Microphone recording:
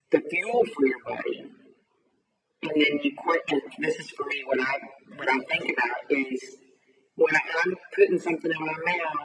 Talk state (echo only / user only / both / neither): echo only